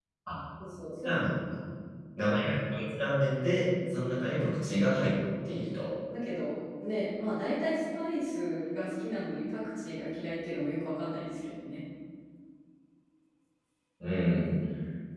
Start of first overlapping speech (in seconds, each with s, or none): none